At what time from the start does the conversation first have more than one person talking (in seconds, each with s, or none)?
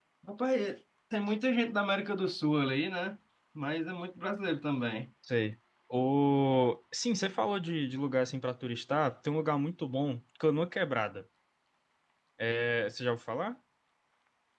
none